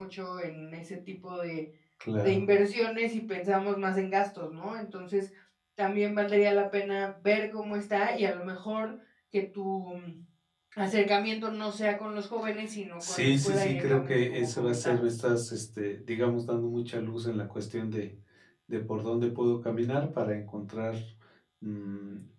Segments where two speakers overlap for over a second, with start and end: 13.1-15.0

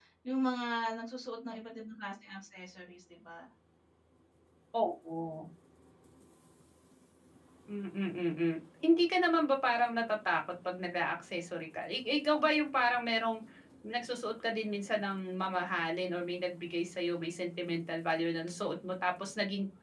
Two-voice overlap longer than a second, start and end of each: none

